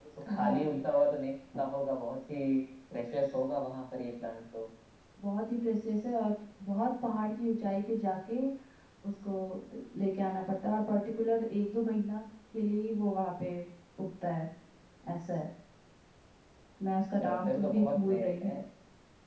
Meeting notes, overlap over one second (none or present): present